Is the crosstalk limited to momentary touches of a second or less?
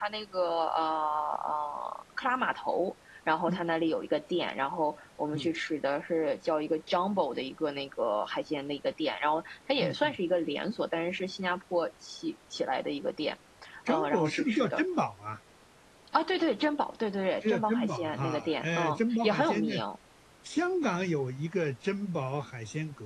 No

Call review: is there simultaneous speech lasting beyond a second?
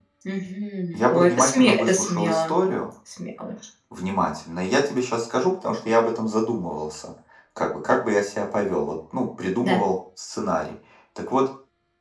Yes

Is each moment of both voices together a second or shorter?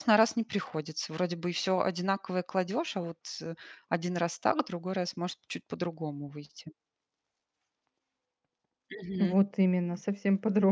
Yes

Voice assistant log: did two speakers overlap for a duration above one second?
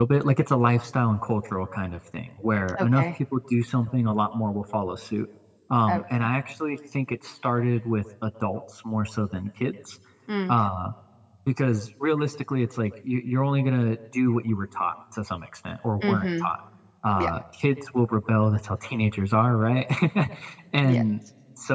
No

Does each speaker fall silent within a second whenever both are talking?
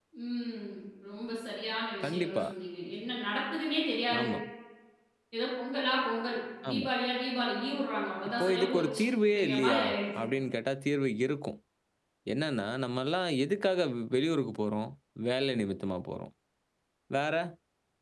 No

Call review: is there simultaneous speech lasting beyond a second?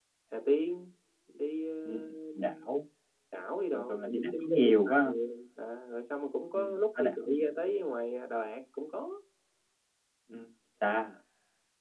Yes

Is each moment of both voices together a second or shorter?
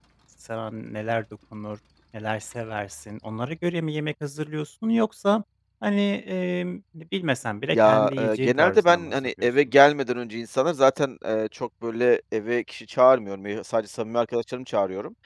No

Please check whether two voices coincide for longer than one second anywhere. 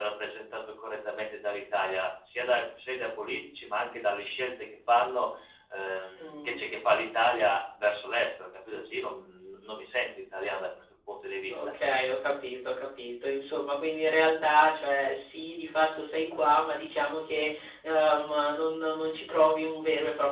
No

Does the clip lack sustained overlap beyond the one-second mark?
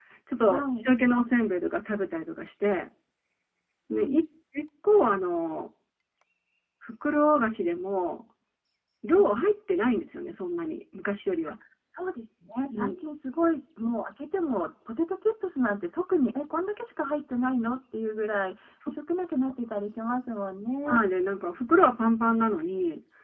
Yes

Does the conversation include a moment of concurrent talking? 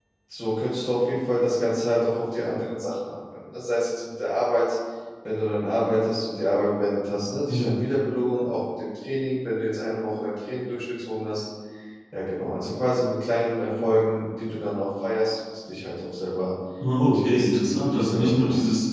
Yes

